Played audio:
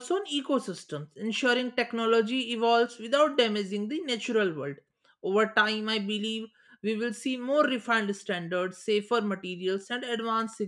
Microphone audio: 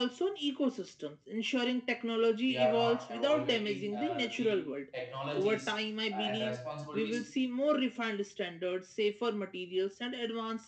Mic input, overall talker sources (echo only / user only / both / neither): both